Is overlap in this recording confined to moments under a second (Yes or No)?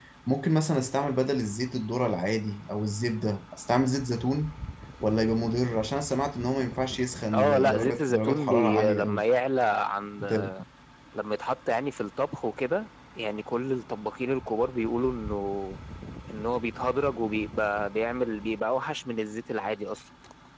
No